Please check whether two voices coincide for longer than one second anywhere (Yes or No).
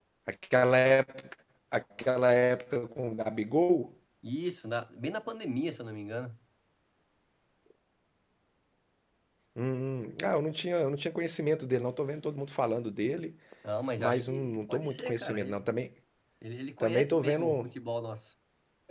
Yes